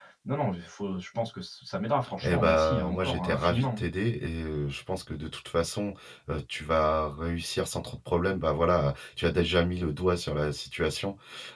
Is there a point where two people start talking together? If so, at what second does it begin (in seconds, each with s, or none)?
2.2 s